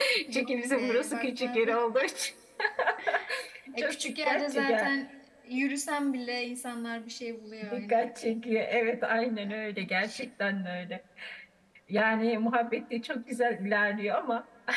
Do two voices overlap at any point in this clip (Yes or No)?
Yes